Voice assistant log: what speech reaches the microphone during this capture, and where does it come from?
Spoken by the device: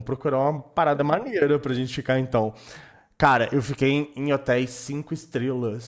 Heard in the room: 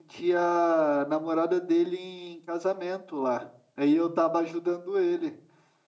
user only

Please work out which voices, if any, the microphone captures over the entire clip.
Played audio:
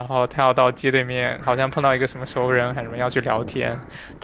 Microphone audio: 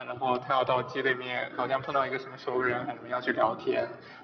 echo only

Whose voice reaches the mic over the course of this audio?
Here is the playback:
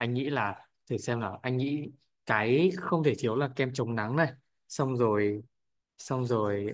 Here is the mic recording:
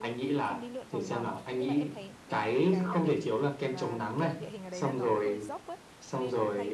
both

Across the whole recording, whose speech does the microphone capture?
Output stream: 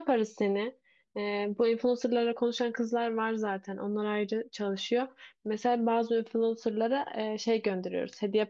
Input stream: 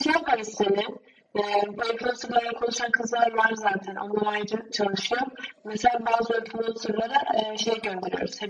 echo only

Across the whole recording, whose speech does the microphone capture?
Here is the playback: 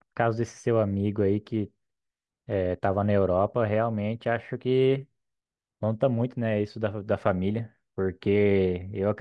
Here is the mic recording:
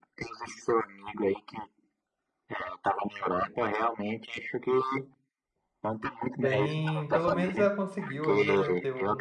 both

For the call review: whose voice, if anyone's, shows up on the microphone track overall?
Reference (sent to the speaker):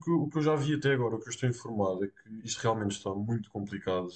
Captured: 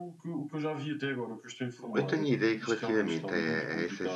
both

